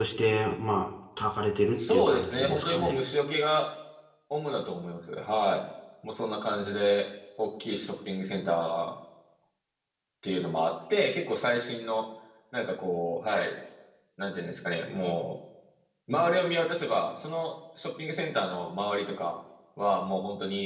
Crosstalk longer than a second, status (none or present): present